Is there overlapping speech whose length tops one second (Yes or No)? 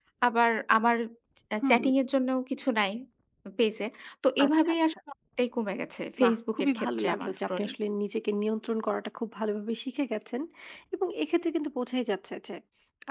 Yes